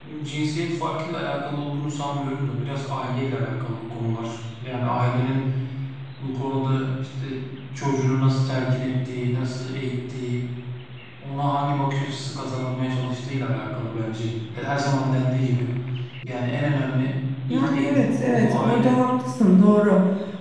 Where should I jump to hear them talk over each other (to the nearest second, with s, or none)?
18 s